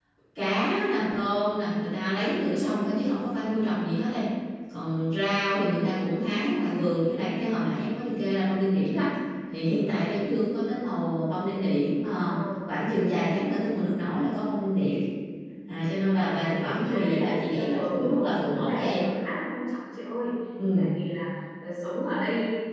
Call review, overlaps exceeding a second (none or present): present